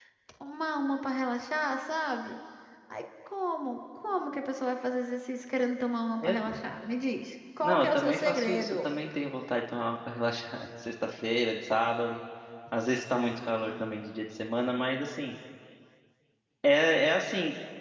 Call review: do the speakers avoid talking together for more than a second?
No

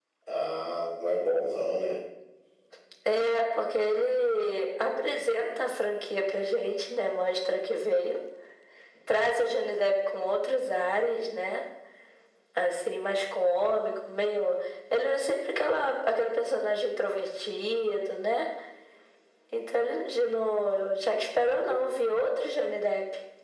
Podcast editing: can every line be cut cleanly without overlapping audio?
Yes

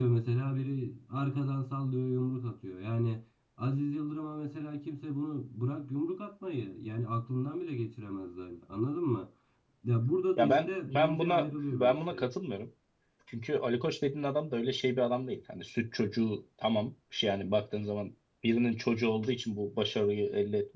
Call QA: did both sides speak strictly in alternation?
No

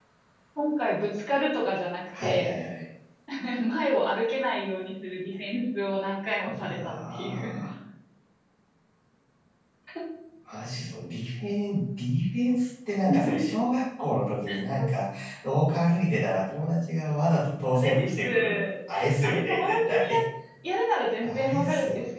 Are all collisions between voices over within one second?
No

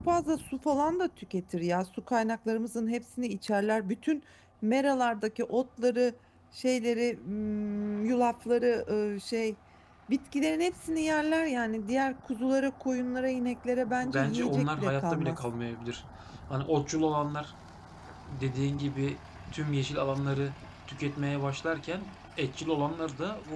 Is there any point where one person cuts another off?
Yes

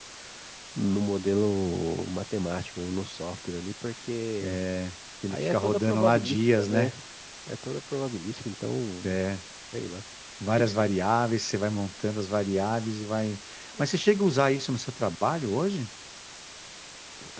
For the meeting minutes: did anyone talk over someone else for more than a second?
Yes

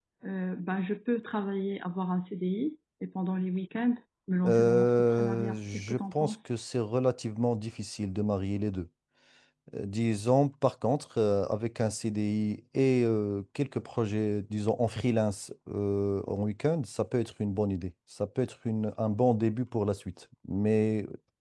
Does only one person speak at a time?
No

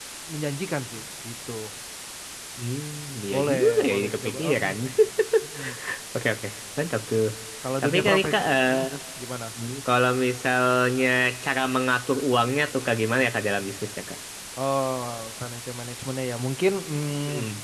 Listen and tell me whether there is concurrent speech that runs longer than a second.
Yes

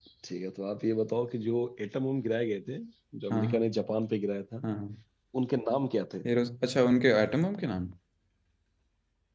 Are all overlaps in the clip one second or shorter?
Yes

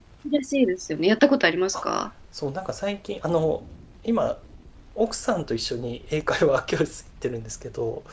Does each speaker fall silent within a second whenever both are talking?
Yes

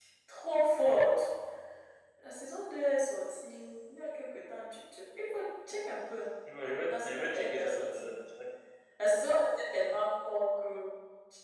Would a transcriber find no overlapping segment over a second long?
No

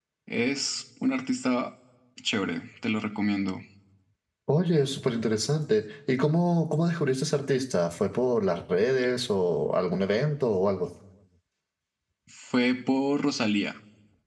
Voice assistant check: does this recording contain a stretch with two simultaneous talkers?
No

